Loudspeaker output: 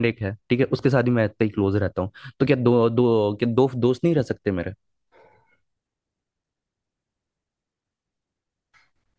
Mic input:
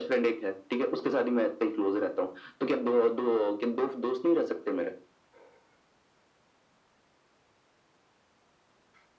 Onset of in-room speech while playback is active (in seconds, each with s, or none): none